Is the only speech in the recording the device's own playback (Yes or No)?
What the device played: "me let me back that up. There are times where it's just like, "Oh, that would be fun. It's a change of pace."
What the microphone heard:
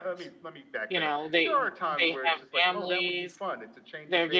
No